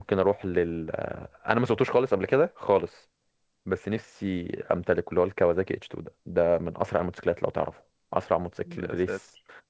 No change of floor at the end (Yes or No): Yes